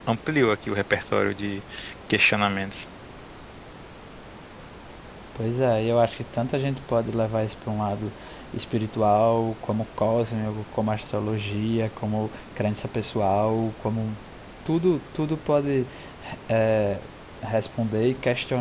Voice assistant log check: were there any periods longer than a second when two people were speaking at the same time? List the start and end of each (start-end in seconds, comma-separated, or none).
none